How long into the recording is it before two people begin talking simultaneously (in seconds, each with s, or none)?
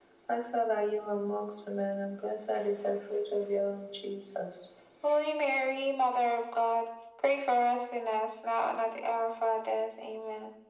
none